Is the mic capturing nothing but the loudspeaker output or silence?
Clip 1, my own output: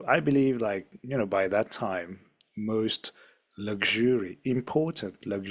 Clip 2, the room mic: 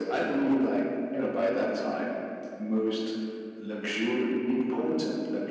Yes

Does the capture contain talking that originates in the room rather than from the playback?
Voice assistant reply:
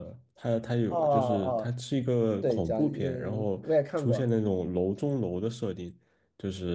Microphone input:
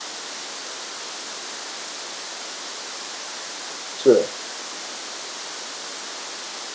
Yes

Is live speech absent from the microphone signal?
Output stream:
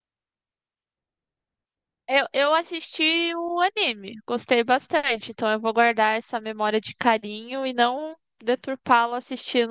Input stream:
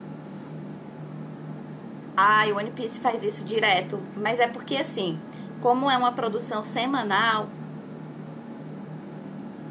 No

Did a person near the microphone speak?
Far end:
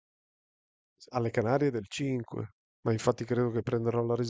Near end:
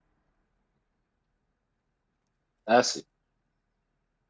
Yes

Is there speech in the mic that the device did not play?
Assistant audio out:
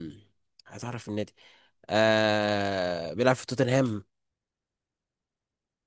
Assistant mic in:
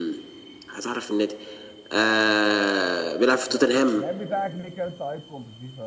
Yes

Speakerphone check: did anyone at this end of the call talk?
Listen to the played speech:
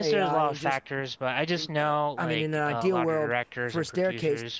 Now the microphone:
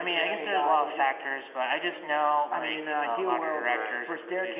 Yes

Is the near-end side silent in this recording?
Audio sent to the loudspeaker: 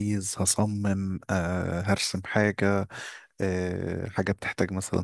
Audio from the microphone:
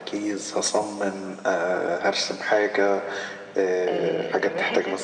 No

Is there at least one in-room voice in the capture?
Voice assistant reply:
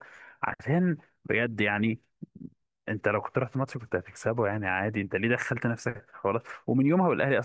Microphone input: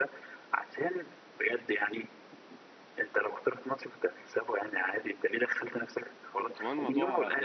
Yes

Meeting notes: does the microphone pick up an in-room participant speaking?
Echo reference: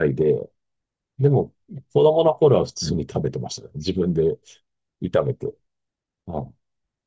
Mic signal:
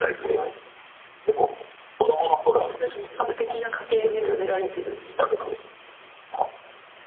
Yes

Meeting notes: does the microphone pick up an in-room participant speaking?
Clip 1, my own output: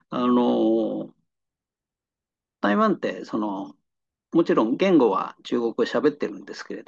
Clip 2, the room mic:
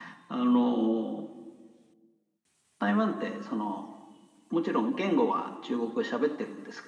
No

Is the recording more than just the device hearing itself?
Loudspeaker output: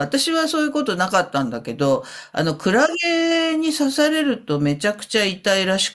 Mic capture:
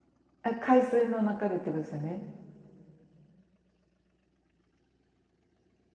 Yes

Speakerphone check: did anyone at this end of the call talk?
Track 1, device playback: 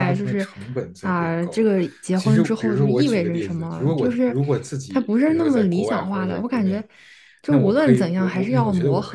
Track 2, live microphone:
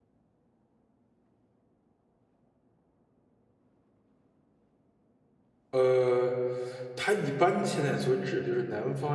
Yes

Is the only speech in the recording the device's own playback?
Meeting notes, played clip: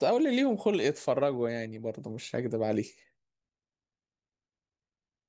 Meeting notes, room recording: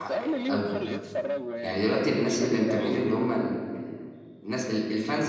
No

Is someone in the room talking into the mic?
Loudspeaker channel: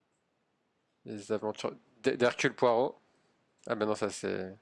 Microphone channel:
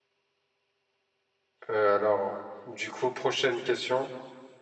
Yes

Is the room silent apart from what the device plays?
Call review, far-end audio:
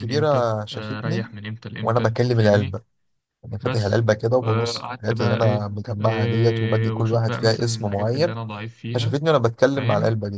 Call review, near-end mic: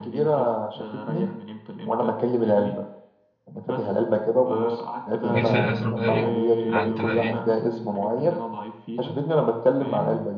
No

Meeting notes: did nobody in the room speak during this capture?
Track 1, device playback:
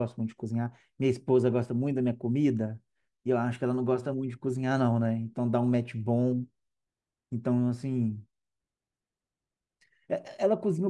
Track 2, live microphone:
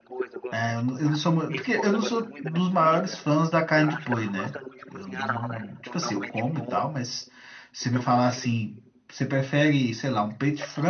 No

